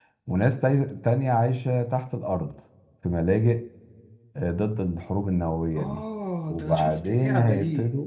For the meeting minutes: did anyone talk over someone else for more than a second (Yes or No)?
Yes